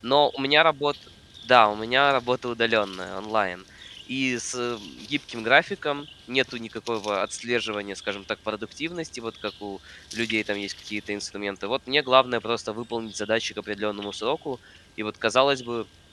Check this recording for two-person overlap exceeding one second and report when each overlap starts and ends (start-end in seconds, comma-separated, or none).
none